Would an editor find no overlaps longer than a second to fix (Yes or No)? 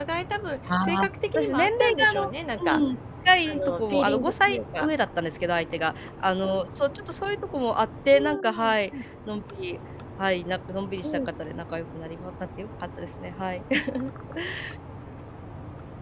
No